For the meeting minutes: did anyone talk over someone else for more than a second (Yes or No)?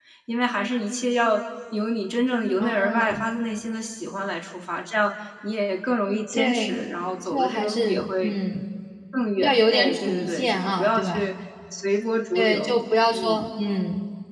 Yes